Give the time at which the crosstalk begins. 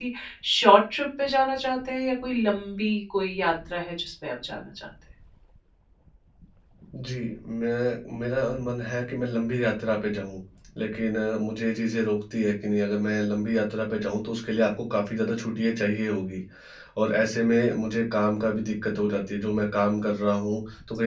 none

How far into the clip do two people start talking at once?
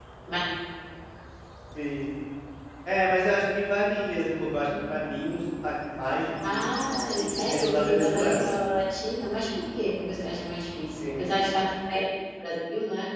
7 s

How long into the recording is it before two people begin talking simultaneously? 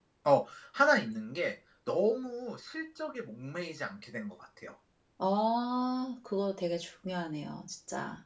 none

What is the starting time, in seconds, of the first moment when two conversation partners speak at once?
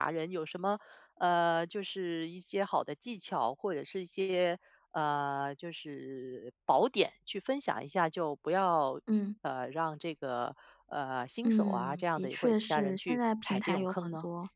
11 s

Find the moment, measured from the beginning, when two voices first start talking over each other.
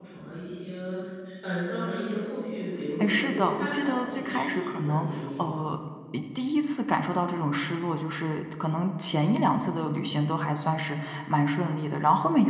3 s

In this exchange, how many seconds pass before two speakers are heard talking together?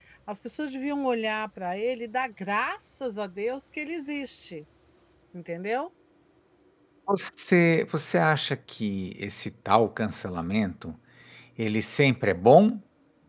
none

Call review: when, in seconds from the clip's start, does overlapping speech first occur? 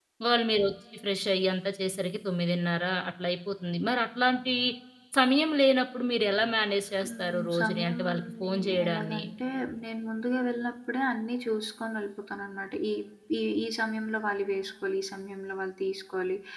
7 s

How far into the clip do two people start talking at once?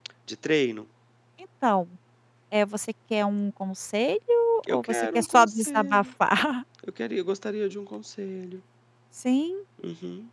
5 s

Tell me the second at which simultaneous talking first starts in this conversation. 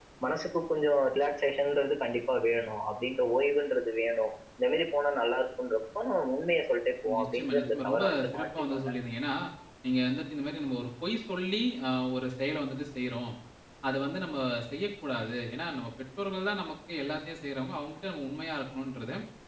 7 s

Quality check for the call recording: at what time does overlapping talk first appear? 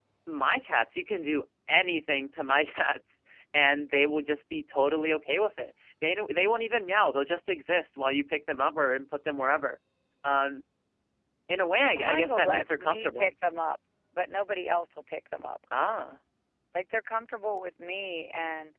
12 s

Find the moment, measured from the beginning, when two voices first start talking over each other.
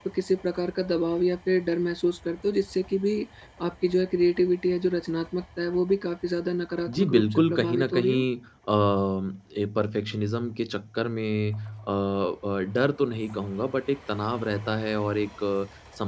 7 s

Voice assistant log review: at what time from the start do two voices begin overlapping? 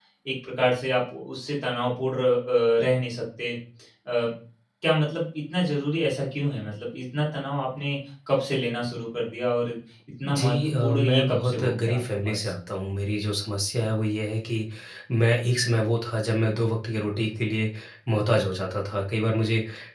10 s

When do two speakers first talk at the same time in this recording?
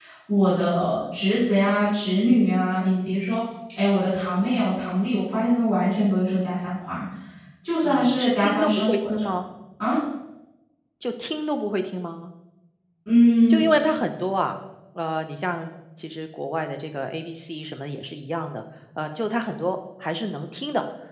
8 s

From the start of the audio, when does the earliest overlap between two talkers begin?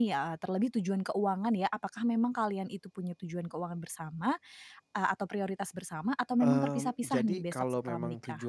6 s

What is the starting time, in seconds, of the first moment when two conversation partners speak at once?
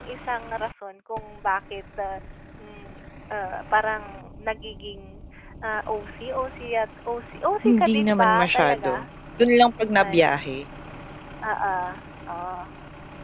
8 s

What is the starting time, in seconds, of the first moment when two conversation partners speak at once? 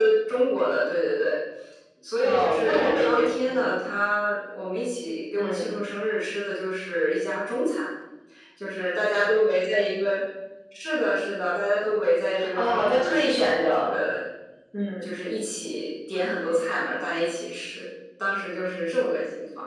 2 s

